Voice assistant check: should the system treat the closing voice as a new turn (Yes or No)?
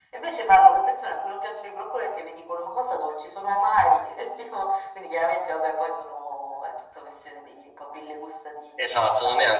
Yes